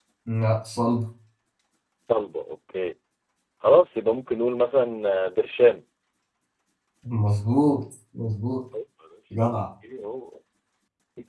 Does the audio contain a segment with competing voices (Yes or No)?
No